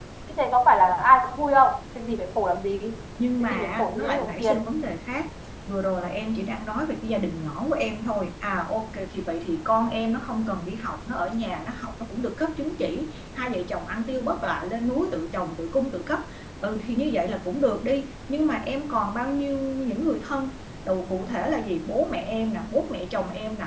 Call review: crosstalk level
present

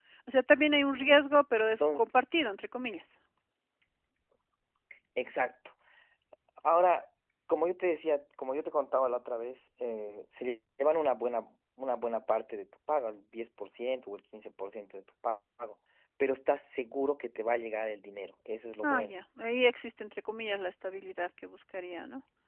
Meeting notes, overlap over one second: none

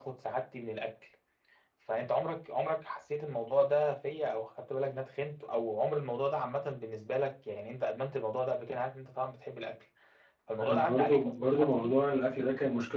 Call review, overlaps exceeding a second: present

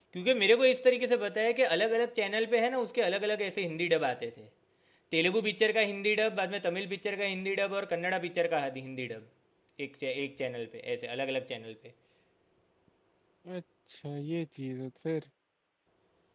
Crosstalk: none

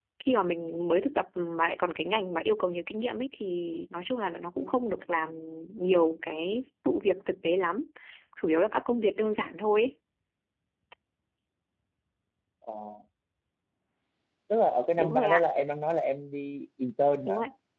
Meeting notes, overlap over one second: none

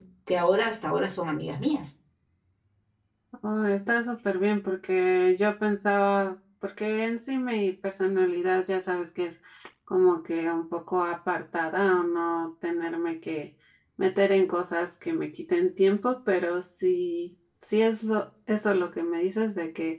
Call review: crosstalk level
none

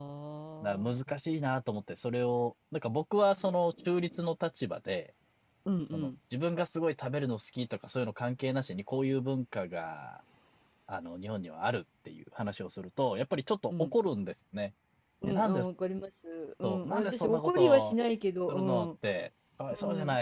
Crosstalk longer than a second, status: present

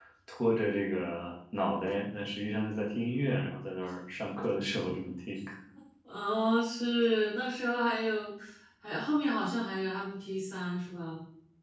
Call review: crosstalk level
none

